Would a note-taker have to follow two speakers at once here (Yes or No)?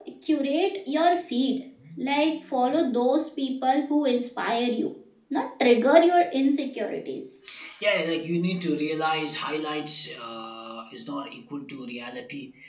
No